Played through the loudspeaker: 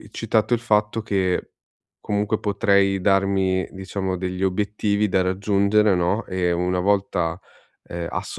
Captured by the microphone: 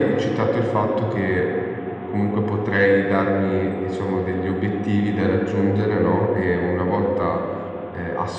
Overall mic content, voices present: echo only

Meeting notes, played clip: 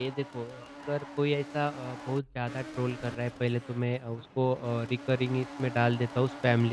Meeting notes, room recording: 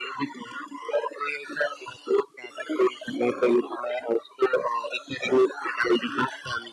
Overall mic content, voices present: echo only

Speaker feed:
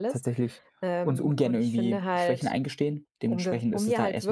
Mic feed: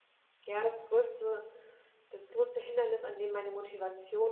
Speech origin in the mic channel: user only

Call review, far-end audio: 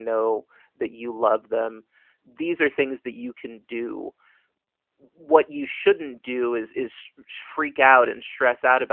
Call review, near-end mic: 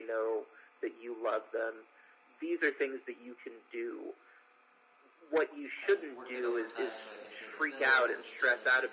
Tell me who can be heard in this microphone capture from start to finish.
both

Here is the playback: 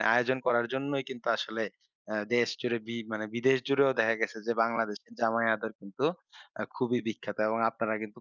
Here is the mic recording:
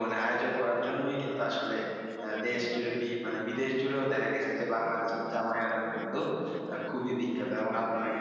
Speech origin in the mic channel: both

